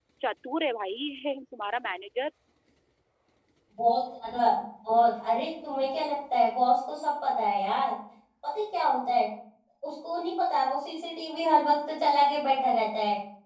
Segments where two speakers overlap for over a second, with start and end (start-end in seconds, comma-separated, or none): none